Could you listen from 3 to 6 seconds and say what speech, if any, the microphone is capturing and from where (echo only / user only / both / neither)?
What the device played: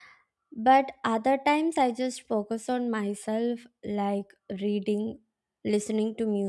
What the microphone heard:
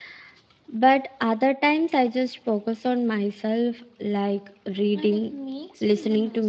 both